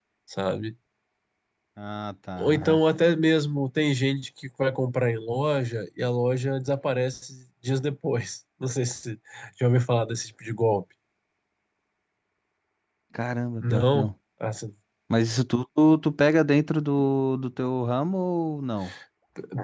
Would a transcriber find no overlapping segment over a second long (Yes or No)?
Yes